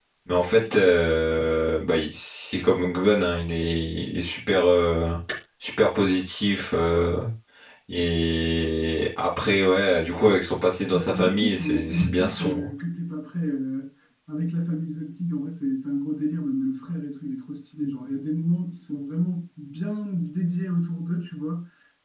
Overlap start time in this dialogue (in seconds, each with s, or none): 10.9 s